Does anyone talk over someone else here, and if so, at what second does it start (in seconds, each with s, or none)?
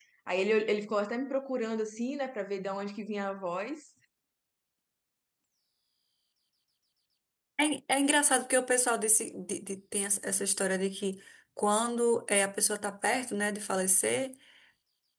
none